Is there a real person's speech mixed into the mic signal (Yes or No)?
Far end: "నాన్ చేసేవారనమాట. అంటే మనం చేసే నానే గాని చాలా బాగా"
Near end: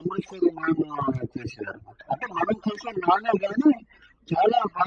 No